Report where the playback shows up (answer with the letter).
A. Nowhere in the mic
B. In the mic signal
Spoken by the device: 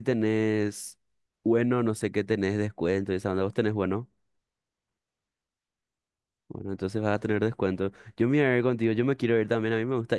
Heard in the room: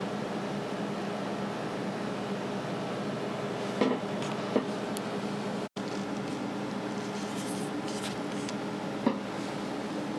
A